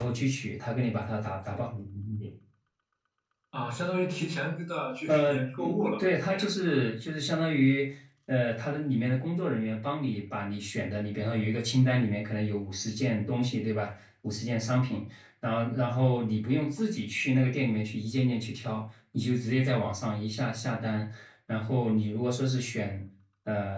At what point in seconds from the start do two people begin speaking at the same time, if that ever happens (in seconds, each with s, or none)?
5.1 s